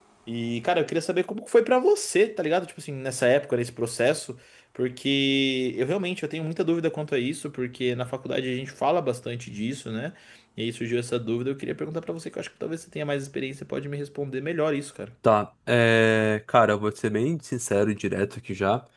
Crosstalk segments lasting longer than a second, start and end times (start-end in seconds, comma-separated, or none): none